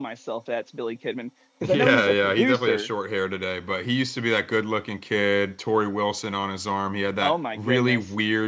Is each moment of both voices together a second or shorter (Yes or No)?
No